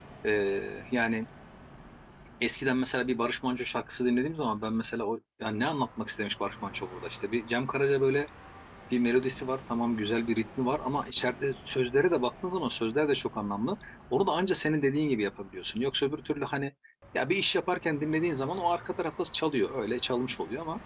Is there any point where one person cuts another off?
No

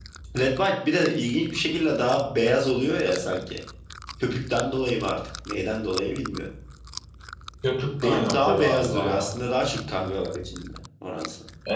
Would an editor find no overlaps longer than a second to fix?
No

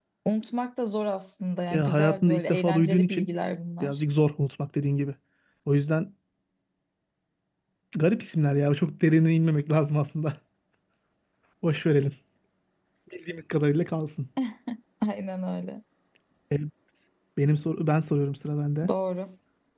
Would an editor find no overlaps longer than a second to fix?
No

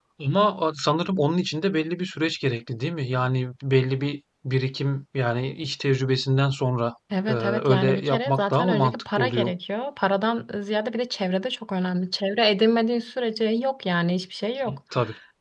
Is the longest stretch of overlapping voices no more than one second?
No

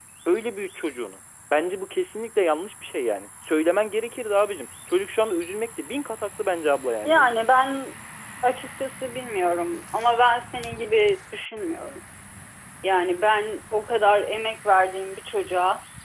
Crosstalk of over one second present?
No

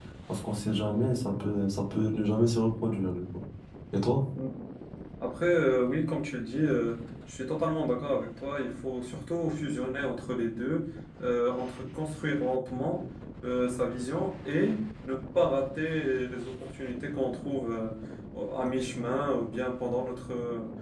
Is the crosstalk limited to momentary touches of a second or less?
Yes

